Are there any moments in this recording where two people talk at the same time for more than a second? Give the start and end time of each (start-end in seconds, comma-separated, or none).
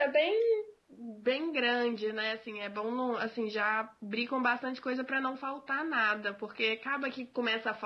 none